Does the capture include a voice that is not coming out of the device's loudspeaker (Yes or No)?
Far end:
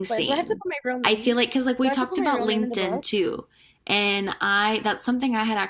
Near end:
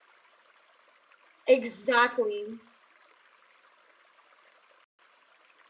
Yes